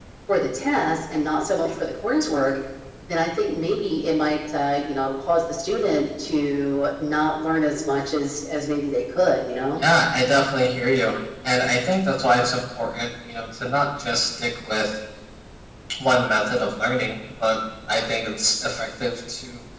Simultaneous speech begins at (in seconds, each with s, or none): none